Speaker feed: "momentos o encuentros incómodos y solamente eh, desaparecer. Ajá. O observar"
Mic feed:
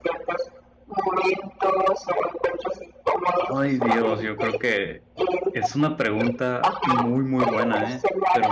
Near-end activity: present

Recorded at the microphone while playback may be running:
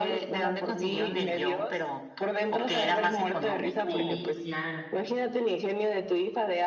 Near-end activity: present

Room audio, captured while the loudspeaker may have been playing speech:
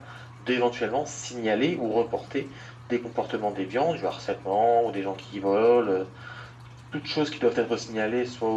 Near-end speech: none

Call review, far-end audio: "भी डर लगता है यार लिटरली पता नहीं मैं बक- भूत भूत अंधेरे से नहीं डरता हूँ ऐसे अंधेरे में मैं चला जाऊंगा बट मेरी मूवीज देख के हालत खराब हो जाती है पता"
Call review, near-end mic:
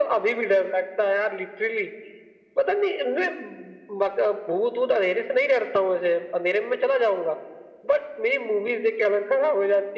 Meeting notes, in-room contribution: none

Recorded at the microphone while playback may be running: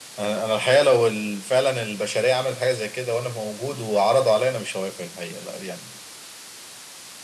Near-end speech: none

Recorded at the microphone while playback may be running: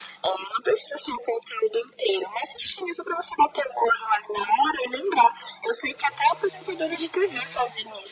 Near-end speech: none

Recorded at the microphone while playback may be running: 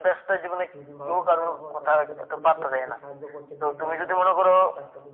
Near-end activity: present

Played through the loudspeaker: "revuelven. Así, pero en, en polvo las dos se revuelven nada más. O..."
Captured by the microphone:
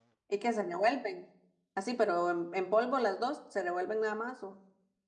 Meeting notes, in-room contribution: none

